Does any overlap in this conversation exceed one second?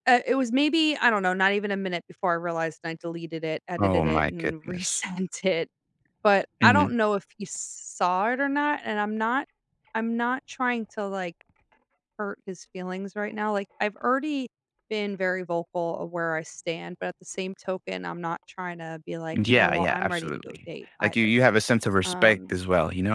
Yes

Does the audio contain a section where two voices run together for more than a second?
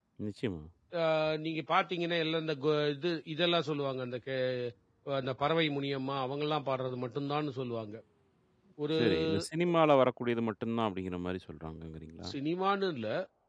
No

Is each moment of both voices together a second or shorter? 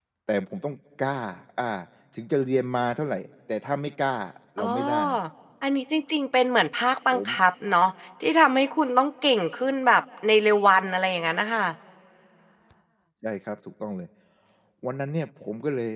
Yes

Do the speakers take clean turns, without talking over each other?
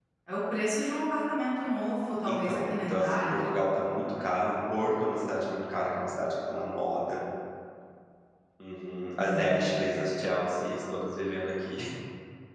No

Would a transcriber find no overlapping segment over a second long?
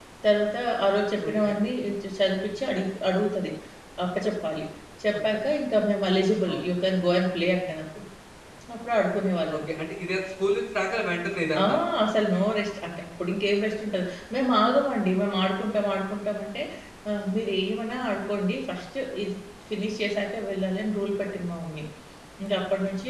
Yes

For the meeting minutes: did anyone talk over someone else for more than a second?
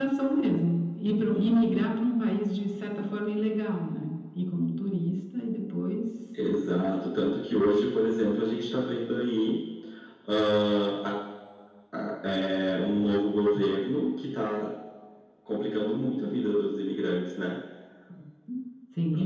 No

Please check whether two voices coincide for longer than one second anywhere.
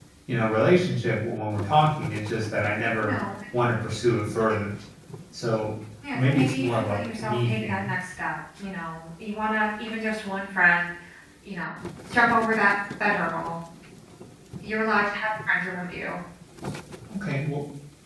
Yes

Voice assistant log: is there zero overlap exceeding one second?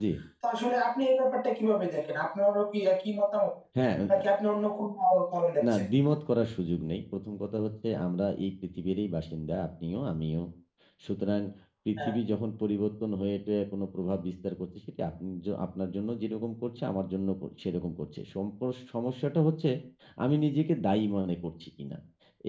Yes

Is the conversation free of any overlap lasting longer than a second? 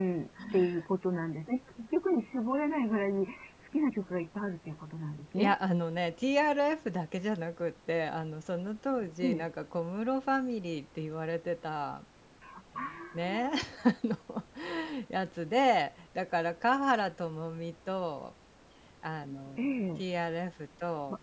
Yes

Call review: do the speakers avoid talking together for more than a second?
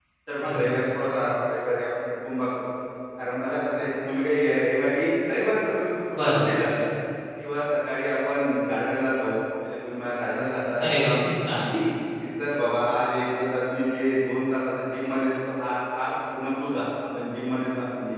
Yes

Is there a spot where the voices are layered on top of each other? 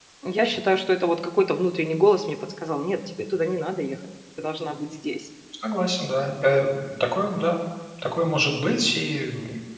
No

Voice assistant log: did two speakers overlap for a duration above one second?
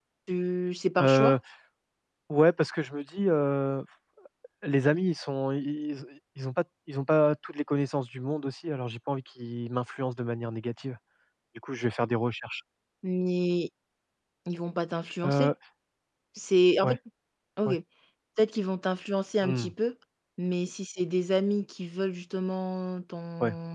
No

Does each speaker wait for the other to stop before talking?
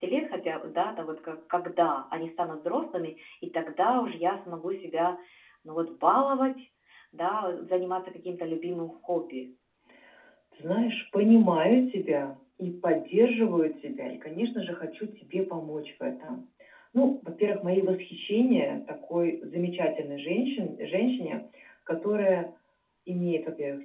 Yes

